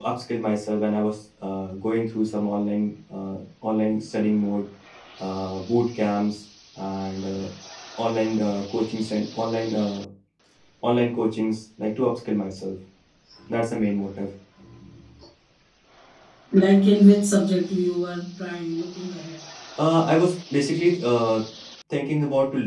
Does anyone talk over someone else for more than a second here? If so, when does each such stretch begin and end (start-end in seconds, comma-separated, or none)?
none